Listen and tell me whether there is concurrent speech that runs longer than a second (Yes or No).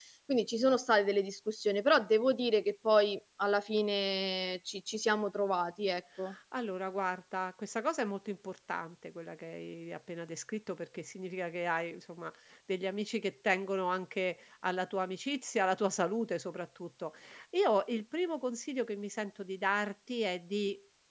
No